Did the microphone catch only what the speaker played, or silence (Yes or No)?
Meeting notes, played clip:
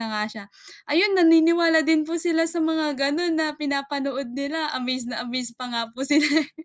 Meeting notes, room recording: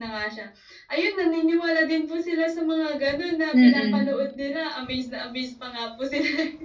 No